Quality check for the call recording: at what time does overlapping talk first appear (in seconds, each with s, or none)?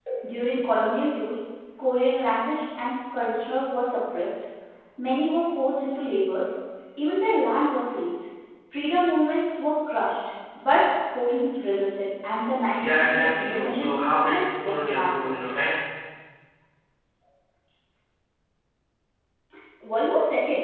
12.8 s